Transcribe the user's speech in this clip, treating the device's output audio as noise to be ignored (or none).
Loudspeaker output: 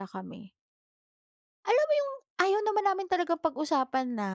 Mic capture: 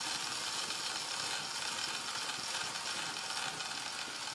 none